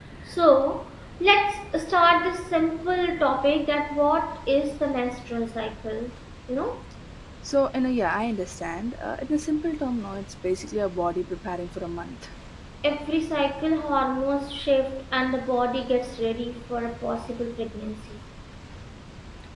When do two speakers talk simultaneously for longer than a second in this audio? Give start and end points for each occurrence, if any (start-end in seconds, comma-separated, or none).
none